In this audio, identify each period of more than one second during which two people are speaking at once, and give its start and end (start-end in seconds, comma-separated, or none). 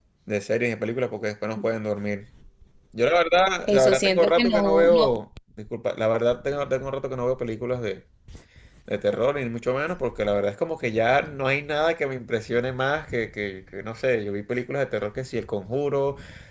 3.7-5.1